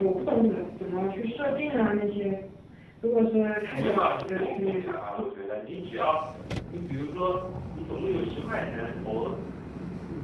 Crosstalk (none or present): present